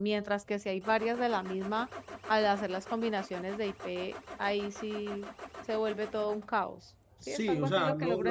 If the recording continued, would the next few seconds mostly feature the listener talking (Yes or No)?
Yes